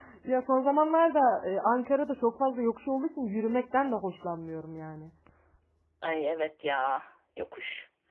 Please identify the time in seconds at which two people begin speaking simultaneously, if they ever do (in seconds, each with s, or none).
none